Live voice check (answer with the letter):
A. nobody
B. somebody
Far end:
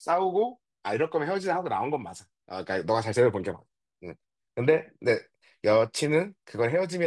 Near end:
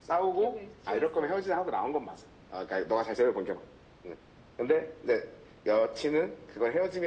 B